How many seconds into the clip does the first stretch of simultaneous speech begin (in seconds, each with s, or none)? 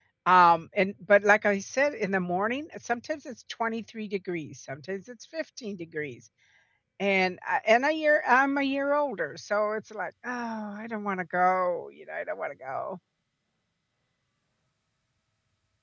none